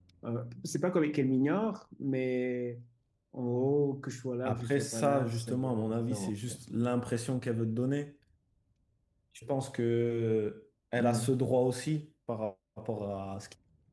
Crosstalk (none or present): present